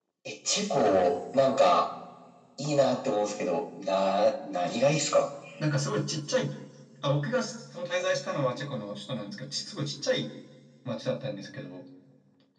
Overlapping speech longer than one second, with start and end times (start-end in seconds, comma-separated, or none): none